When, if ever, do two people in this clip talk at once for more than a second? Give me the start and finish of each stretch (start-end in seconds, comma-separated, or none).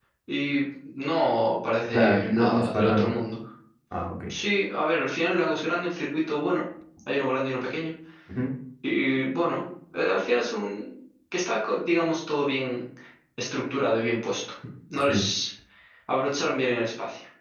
1.9-3.3